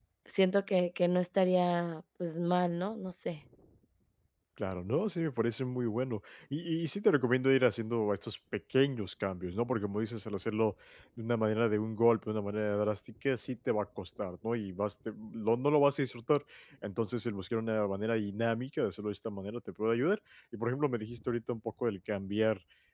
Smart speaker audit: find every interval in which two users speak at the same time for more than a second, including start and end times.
none

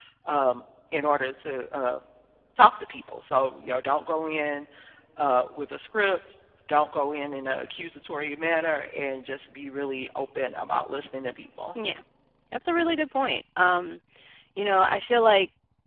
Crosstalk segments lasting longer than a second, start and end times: none

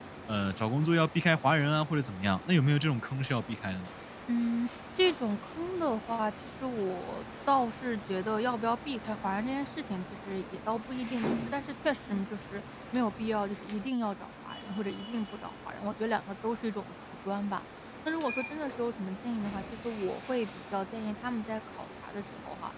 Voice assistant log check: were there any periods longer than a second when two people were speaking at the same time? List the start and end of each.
none

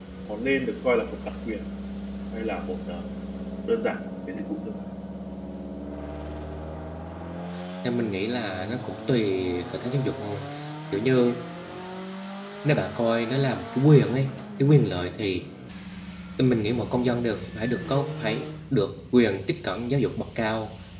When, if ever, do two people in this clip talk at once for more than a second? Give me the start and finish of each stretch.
none

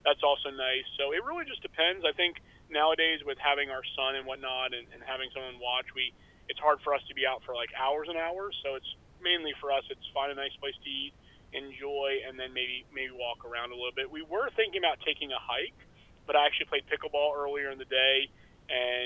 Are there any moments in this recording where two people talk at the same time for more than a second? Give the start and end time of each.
none

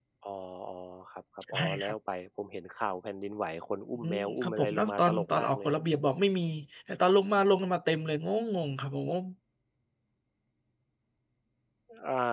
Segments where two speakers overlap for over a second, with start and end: 4.0-5.7

